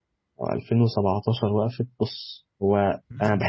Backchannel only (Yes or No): Yes